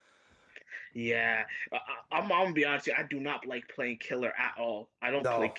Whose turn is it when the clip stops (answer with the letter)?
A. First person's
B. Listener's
A